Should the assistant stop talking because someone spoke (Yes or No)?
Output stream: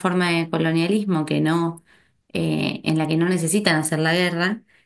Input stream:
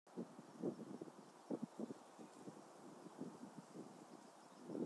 No